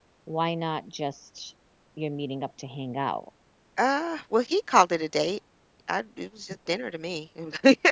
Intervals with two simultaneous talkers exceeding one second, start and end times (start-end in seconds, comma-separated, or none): none